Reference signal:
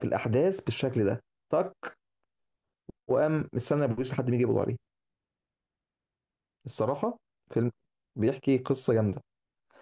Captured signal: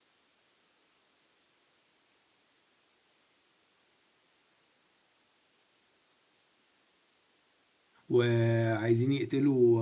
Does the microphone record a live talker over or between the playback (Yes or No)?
Yes